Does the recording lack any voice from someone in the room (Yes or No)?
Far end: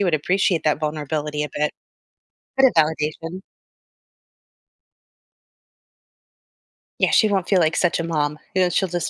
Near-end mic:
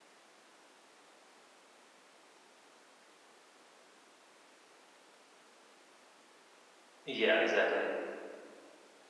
No